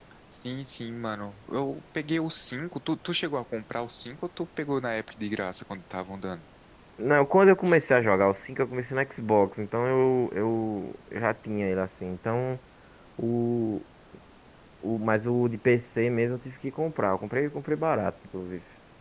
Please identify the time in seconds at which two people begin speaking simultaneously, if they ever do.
none

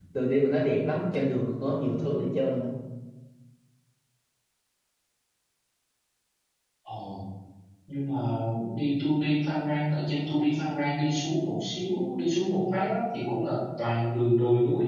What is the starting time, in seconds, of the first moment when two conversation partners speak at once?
none

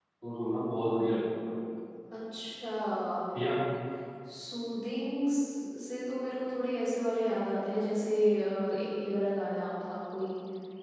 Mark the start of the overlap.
none

